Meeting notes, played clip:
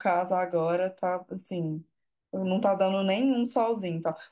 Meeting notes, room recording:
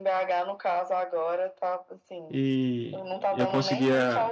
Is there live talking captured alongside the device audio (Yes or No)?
Yes